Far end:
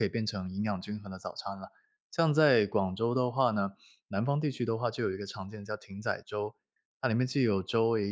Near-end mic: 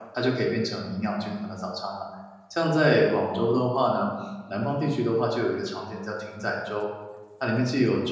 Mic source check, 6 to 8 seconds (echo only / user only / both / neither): echo only